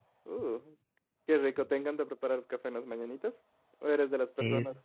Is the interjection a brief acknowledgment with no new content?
Yes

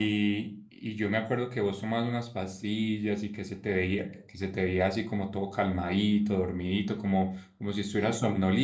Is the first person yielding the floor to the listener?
No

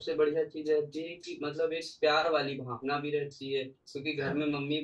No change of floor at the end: Yes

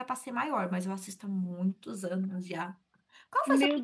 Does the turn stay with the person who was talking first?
No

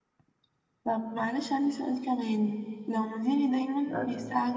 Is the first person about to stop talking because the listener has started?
No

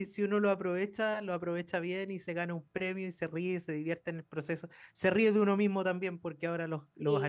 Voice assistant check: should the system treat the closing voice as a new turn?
No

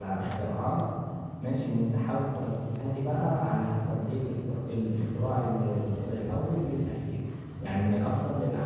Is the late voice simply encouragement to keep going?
Yes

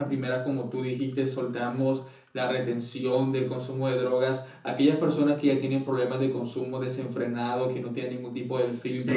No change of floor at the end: Yes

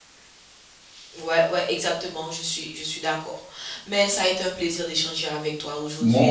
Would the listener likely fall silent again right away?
Yes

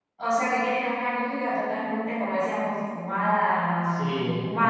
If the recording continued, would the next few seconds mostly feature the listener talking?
No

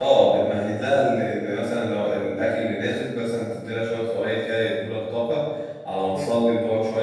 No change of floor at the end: Yes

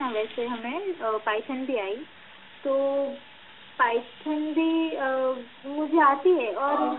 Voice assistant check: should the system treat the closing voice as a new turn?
No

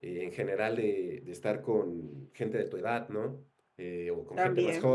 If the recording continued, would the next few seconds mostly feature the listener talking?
No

